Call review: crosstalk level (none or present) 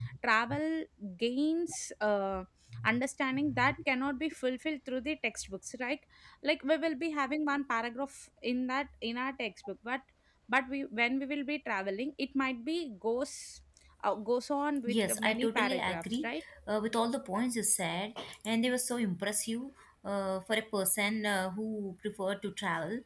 present